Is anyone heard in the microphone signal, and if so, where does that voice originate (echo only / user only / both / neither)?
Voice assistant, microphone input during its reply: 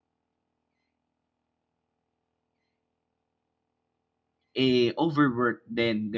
user only